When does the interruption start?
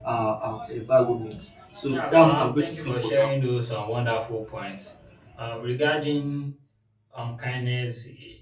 1.9 s

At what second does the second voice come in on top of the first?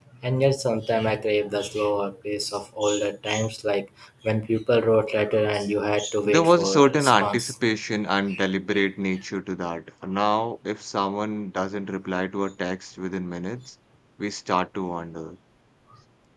6.2 s

